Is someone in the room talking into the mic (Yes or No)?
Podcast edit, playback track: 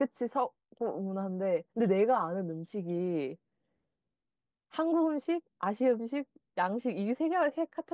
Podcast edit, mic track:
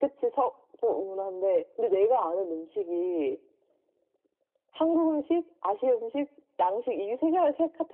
No